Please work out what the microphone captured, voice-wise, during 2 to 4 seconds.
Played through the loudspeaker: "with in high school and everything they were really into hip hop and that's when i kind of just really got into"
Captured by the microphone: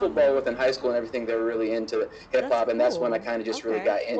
both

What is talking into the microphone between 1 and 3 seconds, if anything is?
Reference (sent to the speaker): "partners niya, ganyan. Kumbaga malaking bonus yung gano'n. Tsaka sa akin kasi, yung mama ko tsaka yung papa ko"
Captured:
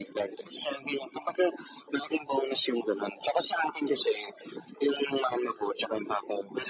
echo only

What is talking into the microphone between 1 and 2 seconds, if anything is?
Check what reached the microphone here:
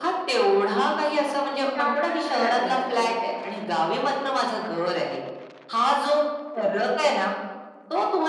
both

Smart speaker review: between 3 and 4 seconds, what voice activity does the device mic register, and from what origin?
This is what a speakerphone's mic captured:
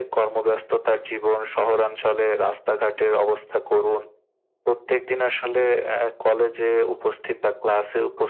echo only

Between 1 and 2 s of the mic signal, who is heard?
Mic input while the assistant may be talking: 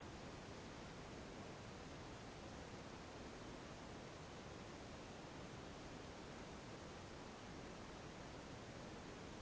neither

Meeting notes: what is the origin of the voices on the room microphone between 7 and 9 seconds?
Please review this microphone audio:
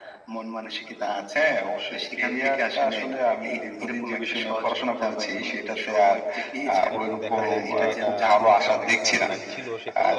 both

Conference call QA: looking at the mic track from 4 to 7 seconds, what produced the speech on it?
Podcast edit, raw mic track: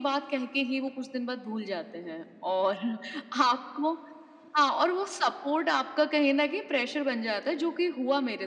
echo only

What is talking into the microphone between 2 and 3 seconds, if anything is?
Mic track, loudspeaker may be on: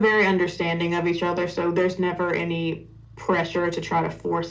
echo only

